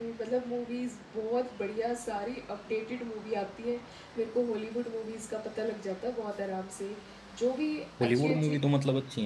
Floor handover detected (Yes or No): Yes